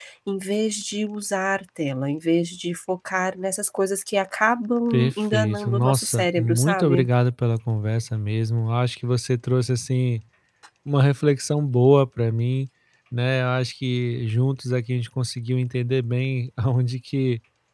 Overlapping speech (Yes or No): Yes